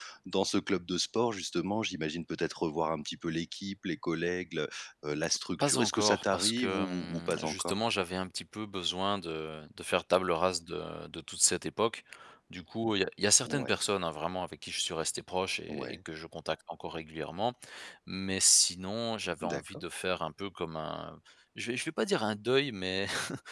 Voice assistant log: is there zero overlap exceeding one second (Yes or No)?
No